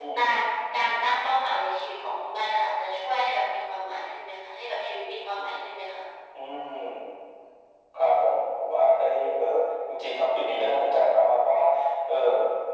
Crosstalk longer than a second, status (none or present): none